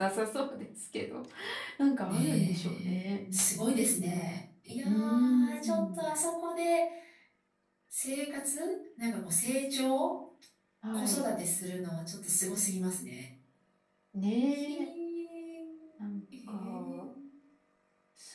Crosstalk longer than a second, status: present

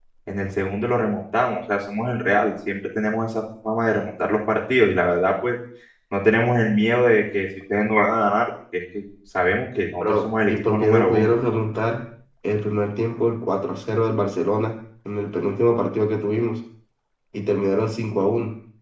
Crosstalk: present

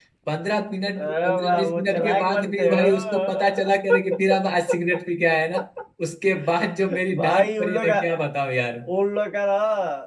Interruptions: present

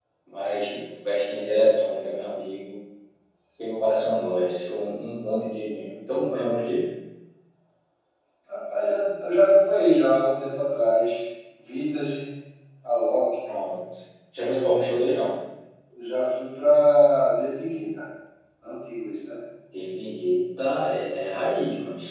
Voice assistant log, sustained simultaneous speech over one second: none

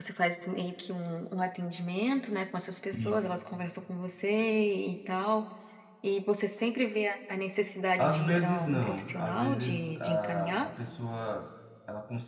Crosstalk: present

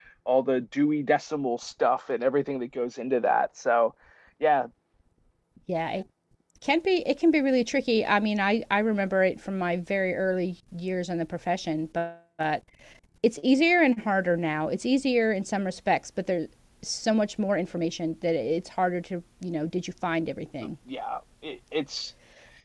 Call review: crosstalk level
none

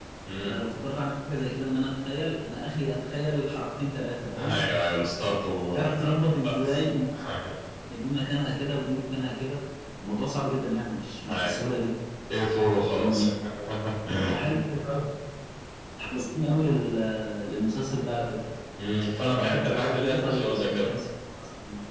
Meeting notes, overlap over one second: present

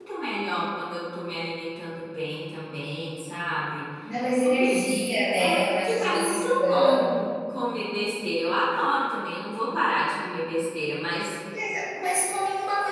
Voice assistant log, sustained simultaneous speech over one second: present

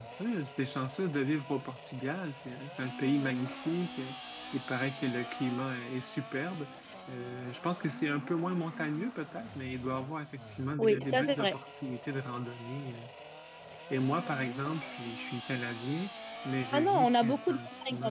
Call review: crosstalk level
present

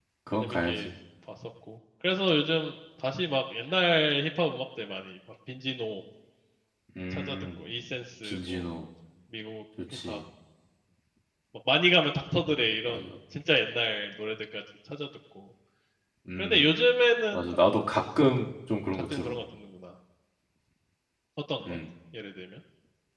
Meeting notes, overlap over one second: none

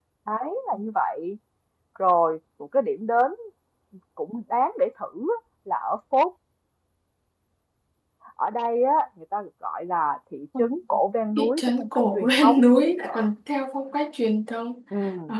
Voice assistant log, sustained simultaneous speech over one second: present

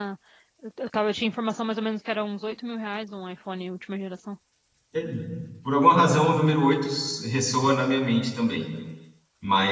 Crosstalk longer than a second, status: none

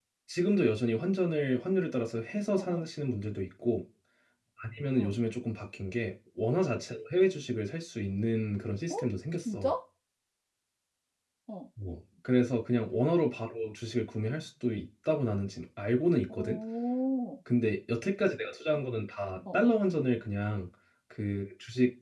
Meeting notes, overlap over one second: none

